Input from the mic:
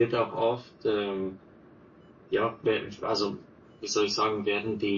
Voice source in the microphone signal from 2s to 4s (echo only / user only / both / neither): user only